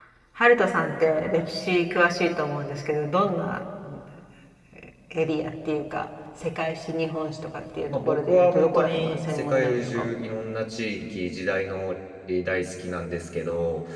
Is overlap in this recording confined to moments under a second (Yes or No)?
No